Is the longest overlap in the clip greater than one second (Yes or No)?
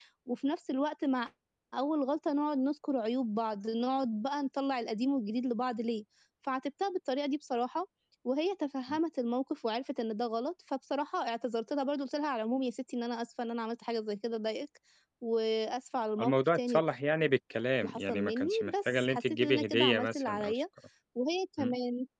Yes